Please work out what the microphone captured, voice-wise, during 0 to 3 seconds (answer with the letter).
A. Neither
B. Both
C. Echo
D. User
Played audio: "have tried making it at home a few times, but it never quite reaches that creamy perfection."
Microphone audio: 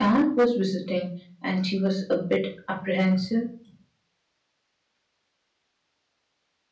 D